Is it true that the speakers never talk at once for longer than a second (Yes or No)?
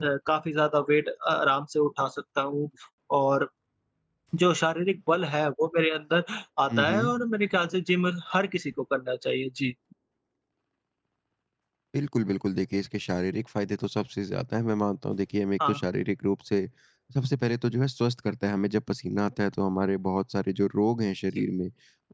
Yes